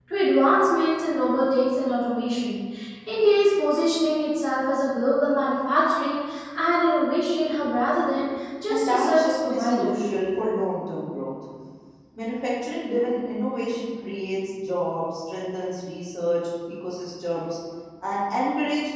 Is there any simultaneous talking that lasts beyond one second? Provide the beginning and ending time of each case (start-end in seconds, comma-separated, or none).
8.7-10.0